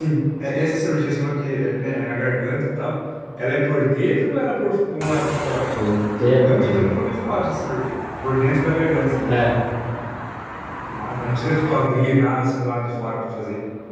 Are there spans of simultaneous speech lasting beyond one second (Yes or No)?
No